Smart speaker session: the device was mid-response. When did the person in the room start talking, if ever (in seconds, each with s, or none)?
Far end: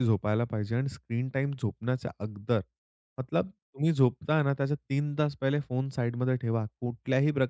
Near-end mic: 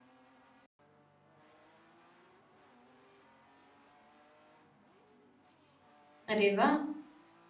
6.3 s